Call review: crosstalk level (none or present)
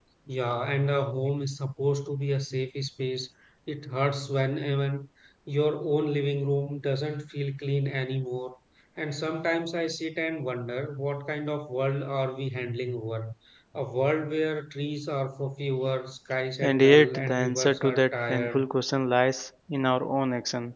present